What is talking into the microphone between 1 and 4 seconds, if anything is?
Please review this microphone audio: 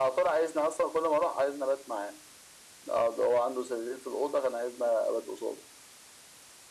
echo only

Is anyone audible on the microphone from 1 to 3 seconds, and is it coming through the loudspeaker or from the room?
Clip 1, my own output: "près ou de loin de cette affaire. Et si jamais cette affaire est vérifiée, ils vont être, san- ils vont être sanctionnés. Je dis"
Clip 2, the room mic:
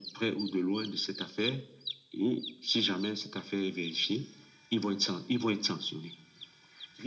echo only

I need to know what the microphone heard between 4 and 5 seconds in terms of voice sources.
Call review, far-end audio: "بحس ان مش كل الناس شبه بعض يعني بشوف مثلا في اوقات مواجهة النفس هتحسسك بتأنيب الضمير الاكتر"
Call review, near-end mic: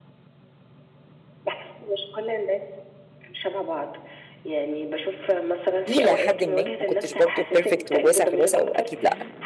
echo only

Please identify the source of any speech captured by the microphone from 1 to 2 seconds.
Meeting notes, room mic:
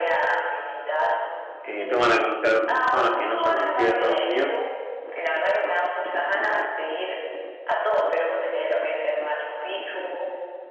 both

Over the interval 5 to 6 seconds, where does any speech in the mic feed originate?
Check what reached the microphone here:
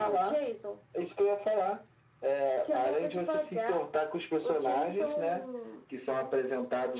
echo only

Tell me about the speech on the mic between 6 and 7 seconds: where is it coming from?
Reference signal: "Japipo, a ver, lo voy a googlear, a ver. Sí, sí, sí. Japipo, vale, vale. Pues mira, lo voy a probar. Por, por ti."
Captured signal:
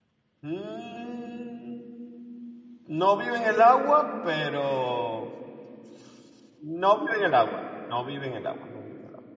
user only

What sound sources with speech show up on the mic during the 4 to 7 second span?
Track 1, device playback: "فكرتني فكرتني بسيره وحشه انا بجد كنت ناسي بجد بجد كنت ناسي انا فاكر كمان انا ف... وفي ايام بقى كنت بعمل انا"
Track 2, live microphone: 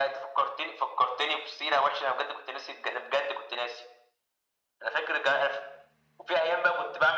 echo only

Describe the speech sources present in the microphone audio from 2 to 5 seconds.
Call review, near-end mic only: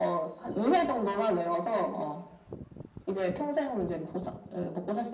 echo only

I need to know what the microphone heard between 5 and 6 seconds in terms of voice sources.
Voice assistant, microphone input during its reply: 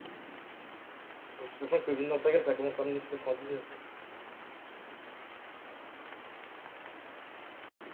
neither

